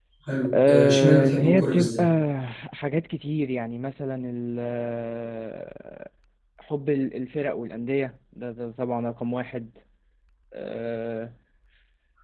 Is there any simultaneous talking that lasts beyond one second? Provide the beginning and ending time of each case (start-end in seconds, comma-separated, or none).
0.7-2.1